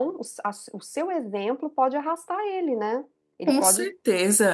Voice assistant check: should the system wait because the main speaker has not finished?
No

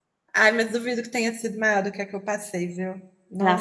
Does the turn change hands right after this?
Yes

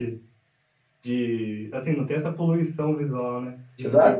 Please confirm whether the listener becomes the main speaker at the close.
Yes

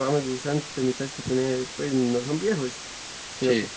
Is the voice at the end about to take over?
No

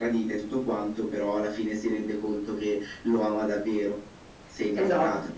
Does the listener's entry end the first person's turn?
Yes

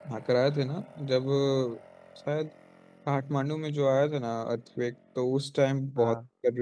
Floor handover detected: No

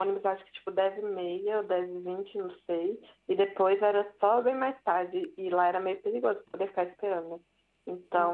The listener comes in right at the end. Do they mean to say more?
No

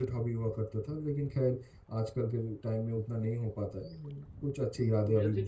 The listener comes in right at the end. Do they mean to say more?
Yes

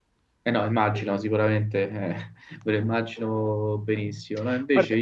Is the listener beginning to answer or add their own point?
No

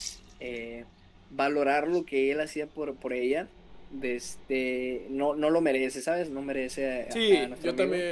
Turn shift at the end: Yes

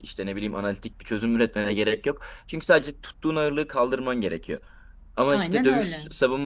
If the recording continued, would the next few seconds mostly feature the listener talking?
No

